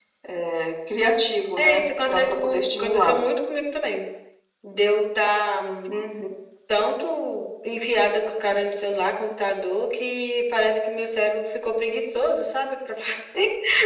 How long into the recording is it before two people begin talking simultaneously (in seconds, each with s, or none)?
1.6 s